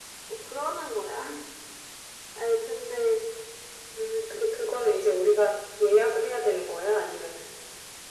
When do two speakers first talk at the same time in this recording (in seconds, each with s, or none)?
none